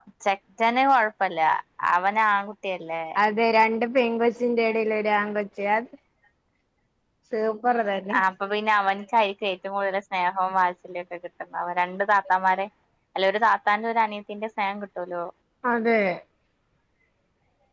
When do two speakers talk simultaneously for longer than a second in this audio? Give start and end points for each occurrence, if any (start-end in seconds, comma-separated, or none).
none